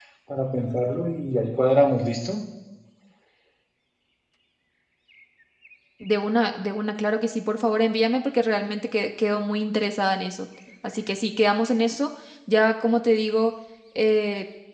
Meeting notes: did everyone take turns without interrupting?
Yes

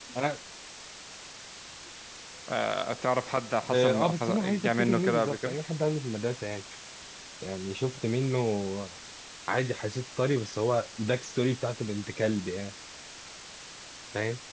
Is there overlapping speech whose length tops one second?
Yes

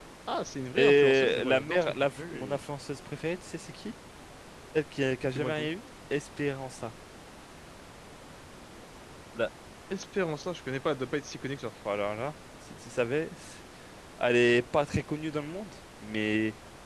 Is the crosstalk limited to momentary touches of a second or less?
No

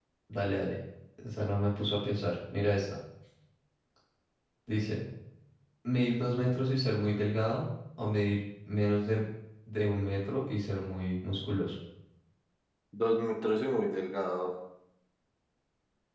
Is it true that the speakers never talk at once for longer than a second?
Yes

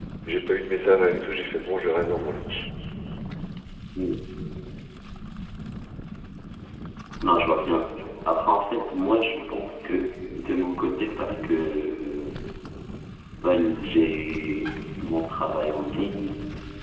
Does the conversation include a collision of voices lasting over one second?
No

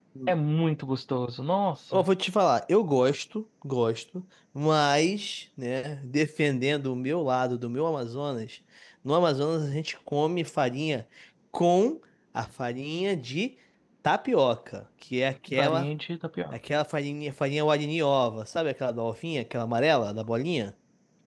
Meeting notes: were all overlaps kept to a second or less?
Yes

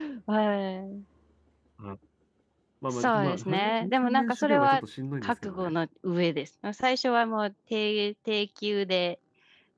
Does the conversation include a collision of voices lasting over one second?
Yes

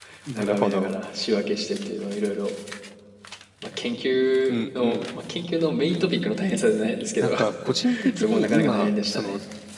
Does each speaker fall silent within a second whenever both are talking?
No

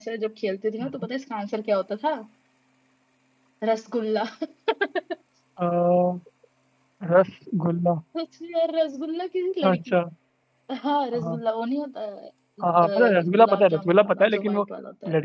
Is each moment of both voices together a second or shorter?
No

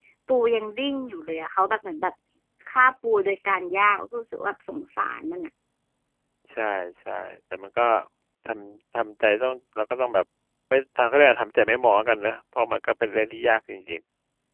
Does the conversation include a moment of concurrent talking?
No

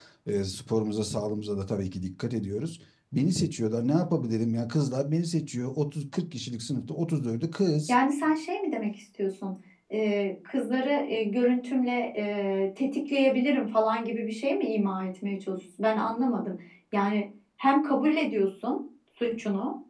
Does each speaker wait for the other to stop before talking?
Yes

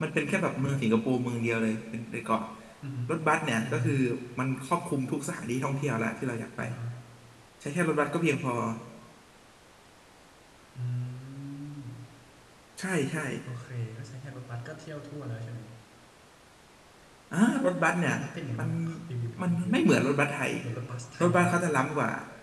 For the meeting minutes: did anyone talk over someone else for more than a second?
No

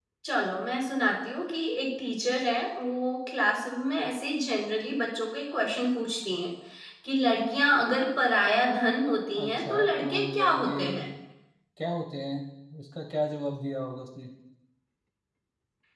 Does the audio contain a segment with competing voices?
Yes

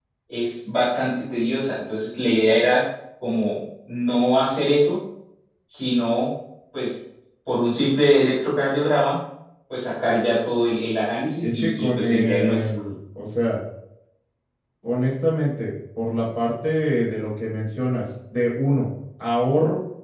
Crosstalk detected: Yes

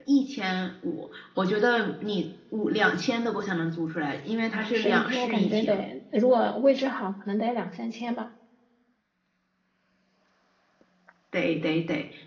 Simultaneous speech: Yes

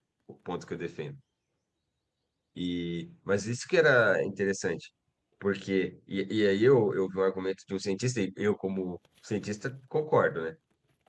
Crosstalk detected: No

